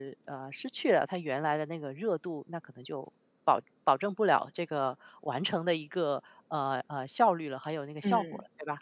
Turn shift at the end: Yes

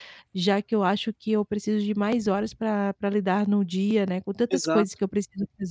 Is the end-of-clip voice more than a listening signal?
No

